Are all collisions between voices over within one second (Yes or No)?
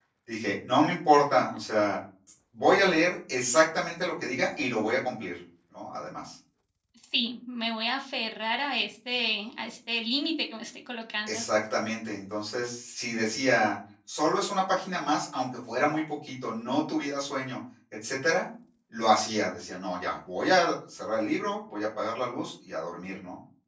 Yes